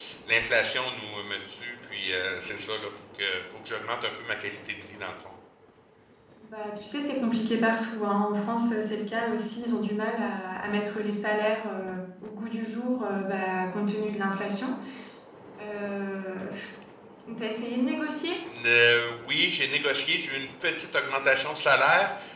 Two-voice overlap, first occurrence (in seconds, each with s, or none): none